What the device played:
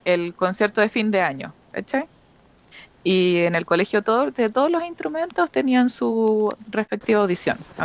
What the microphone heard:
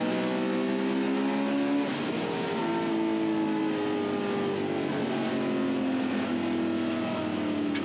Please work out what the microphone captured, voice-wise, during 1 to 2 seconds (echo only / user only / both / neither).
neither